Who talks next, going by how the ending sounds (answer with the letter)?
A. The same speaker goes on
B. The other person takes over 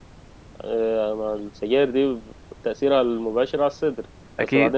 A